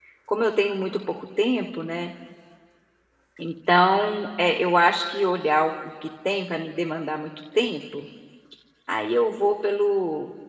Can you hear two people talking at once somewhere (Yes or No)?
No